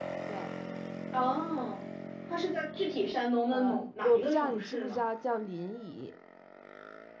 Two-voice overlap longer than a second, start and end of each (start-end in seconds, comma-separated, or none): 3.5-5.0